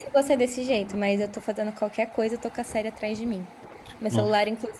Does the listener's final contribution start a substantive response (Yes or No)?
No